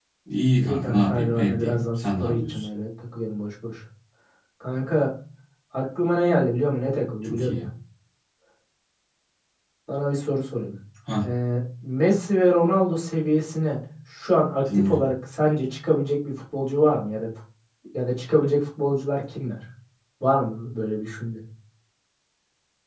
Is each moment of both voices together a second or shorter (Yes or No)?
No